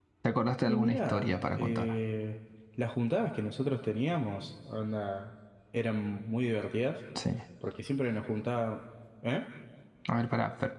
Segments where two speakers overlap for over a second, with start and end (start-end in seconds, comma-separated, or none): 0.7-1.9